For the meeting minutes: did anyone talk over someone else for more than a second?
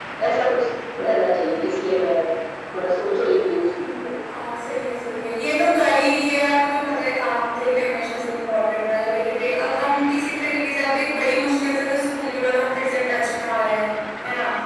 No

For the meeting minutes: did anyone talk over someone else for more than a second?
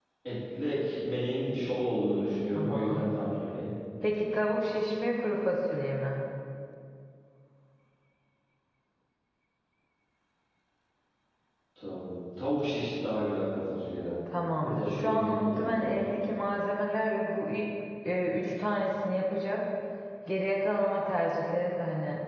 Yes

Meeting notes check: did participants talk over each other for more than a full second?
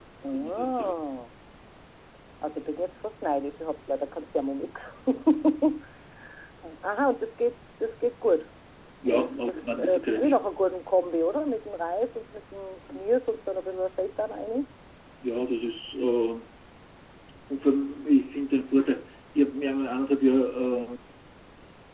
Yes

